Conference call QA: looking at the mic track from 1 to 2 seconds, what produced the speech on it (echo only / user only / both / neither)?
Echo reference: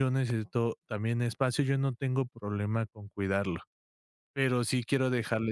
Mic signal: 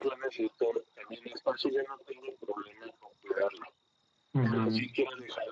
echo only